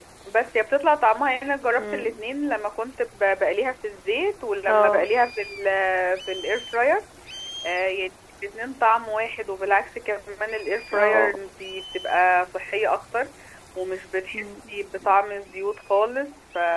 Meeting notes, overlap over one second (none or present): none